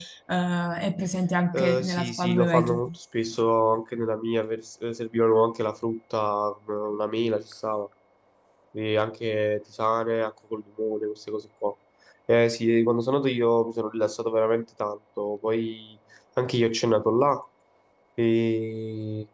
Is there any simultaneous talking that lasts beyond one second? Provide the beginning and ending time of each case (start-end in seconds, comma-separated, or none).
1.5-2.8